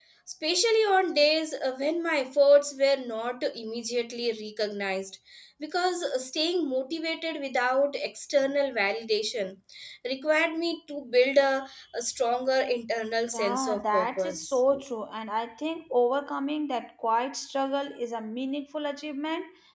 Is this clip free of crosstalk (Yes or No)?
No